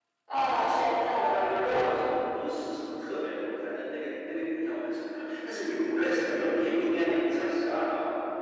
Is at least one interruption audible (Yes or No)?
Yes